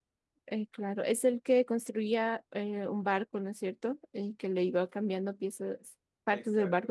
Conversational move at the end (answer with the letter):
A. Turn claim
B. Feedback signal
A